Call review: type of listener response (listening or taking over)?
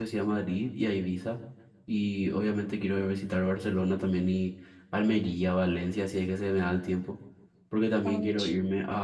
listening